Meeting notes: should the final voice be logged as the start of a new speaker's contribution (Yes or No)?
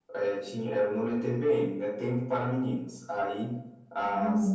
No